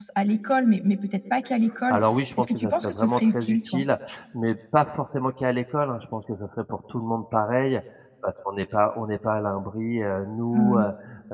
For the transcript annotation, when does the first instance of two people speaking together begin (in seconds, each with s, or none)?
2.4 s